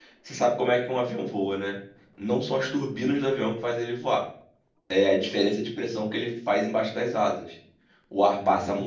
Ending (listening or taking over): listening